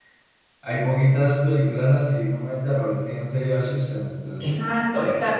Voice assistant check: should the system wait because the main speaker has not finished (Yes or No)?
No